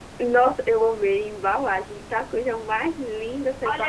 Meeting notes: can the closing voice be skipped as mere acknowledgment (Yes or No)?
No